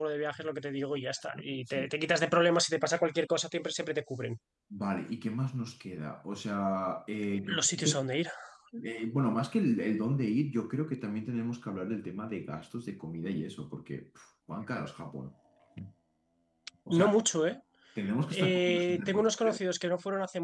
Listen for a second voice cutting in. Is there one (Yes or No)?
Yes